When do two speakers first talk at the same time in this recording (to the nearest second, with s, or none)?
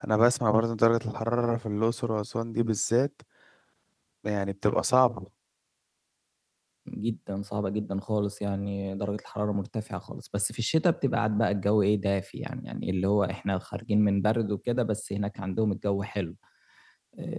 none